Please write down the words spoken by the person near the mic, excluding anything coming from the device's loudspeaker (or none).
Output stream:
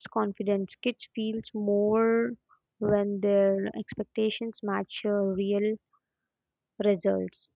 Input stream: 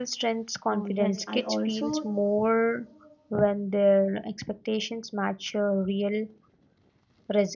oh yes i also